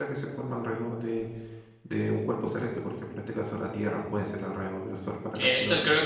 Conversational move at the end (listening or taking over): taking over